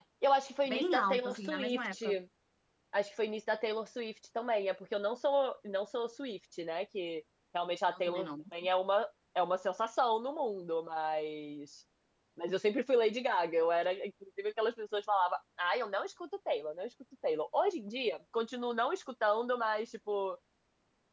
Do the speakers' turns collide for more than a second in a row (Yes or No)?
Yes